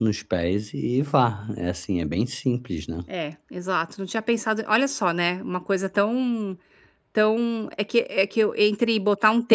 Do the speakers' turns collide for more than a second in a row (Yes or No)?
No